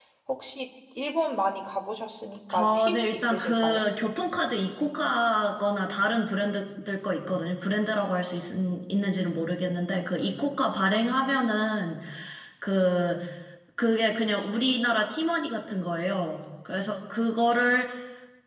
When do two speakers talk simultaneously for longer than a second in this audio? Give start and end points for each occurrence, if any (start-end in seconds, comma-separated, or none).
2.5-3.8